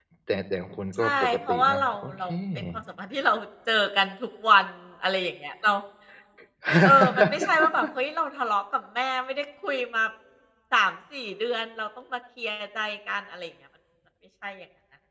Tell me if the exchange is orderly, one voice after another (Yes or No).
No